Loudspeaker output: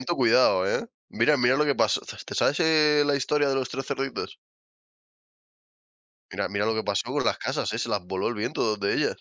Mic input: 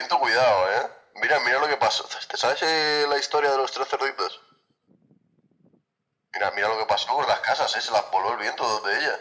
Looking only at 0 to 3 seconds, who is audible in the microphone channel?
echo only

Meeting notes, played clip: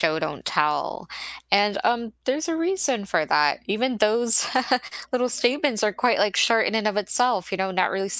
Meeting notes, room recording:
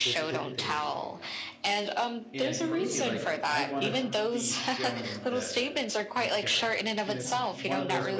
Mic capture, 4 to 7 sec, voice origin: both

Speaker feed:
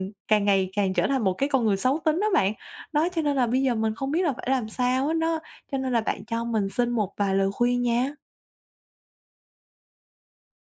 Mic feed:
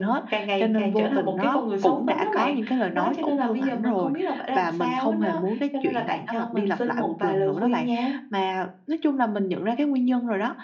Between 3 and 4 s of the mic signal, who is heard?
both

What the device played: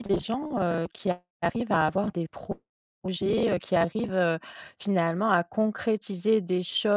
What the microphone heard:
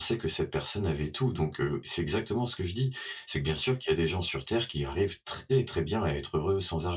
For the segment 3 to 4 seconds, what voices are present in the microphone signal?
user only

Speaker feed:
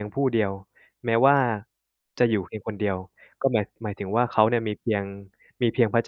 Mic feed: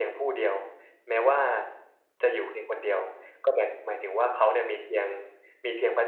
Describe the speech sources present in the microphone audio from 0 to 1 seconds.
echo only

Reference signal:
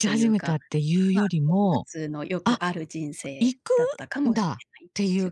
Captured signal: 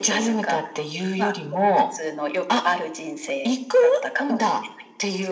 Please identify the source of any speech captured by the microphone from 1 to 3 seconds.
echo only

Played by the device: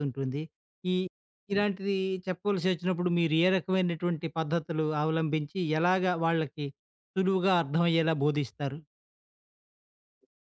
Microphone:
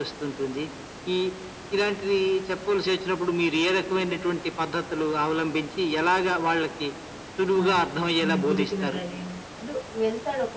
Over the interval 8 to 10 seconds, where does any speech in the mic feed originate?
both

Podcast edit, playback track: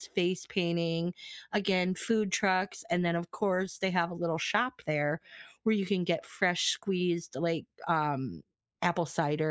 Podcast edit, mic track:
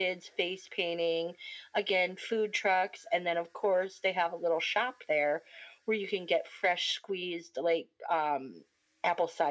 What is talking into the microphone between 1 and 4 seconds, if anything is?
echo only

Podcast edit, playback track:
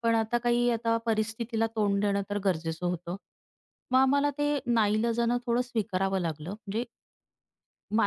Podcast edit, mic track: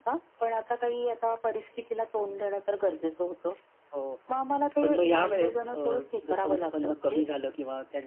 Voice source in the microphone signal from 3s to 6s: both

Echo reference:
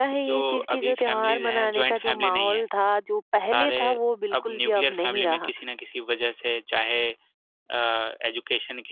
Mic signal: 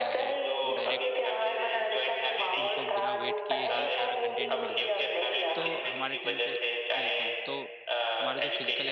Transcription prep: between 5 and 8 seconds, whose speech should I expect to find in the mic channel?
both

